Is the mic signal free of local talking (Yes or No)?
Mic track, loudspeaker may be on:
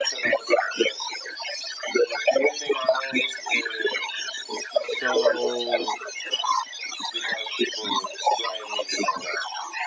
No